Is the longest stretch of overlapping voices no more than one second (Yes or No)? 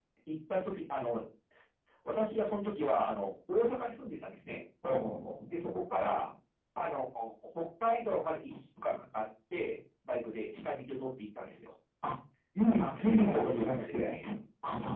No